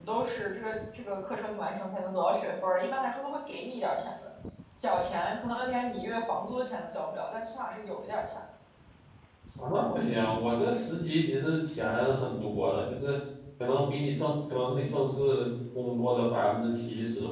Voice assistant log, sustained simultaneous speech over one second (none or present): none